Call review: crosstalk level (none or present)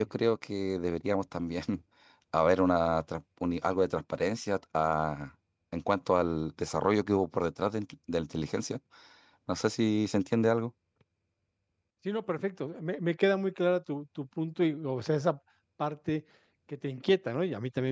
none